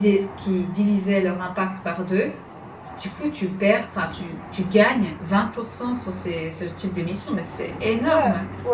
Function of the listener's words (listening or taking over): taking over